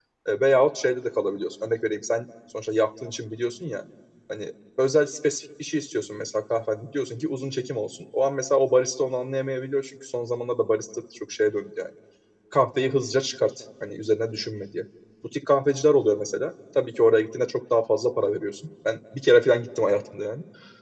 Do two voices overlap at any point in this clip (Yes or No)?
No